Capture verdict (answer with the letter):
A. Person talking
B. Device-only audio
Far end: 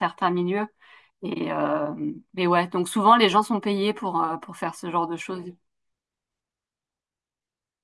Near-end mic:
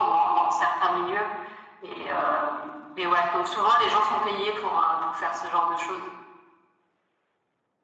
B